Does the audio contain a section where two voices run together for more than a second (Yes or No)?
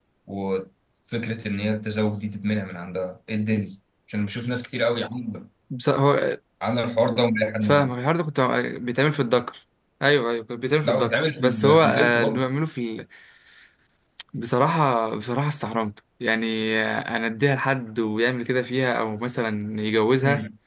Yes